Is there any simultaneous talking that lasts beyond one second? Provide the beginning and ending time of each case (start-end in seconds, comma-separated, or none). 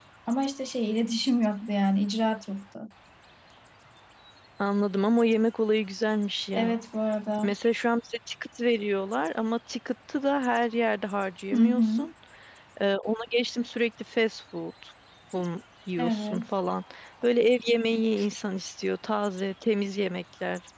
none